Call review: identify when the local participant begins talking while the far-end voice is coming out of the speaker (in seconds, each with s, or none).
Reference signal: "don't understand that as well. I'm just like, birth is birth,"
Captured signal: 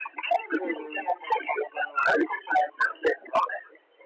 0.6 s